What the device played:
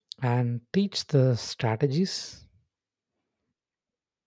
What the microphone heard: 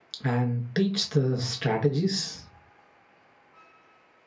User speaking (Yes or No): No